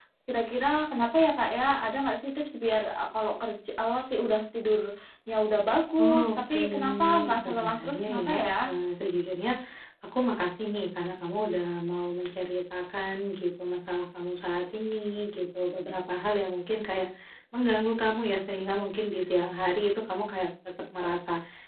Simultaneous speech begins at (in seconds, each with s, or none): 6.0 s